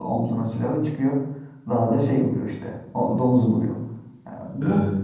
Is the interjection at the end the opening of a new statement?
No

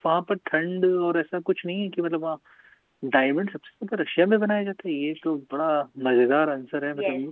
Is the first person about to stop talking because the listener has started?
Yes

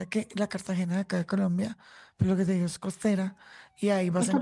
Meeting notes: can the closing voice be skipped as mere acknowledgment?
Yes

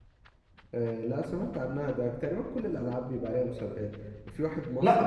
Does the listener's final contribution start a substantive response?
No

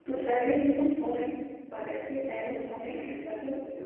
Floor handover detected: Yes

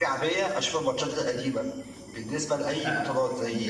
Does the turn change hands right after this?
No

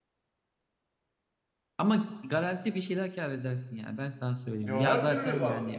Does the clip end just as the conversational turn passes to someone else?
Yes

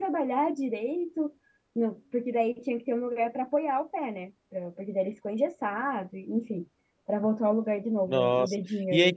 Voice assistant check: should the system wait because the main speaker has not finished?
No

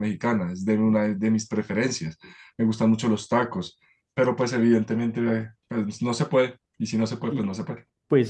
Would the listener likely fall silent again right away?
No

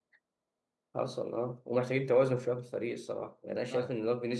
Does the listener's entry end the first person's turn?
No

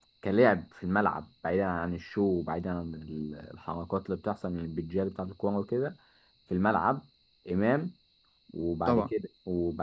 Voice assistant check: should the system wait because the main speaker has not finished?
Yes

